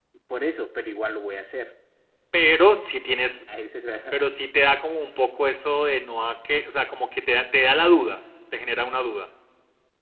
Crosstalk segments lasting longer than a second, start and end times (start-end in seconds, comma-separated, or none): none